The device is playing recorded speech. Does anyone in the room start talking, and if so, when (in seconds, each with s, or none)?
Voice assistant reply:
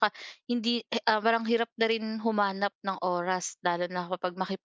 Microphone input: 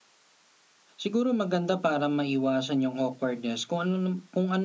1.0 s